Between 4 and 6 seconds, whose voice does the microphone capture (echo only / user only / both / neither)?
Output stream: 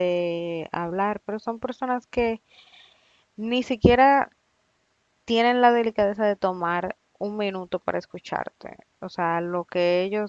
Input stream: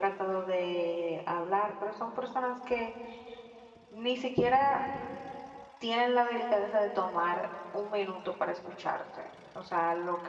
echo only